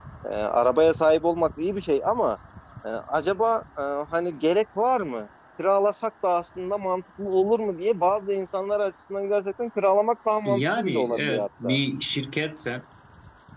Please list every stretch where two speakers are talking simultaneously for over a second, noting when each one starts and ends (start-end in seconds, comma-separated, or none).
10.4-11.8